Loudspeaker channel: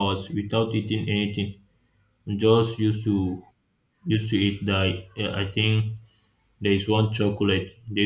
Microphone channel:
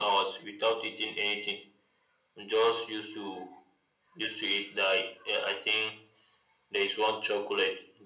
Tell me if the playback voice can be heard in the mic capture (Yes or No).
Yes